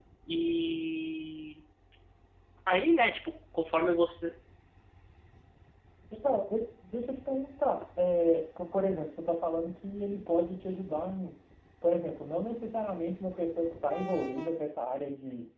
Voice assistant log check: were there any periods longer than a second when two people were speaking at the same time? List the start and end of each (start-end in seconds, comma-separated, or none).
none